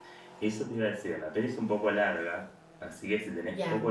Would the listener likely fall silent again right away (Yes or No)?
Yes